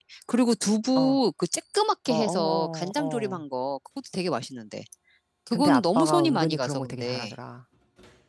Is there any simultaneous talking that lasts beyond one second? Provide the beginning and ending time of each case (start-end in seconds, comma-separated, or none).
2.1-3.4, 5.5-7.3